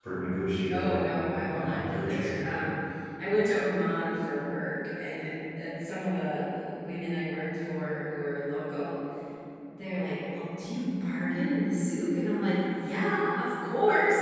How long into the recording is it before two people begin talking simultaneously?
1 s

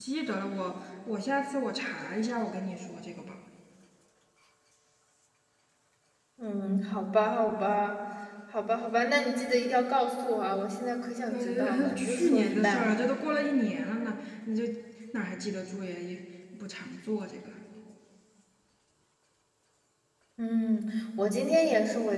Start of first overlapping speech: 11 s

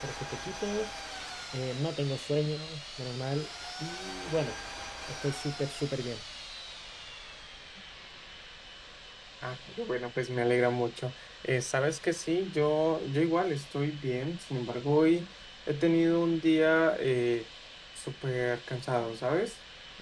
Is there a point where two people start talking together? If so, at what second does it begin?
none

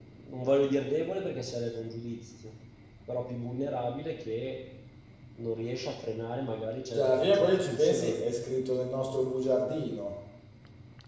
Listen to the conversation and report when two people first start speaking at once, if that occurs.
7 s

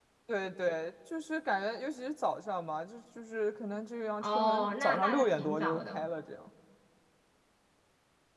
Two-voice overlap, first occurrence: 4 s

